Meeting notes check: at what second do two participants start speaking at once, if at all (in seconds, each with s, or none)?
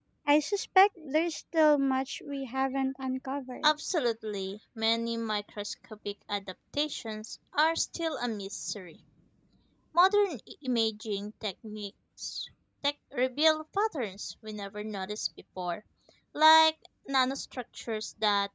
none